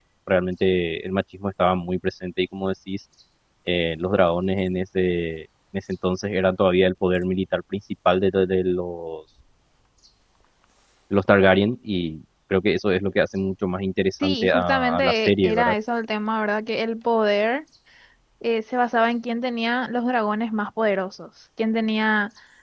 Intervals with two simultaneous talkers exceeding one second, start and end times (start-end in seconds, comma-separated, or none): 14.2-15.8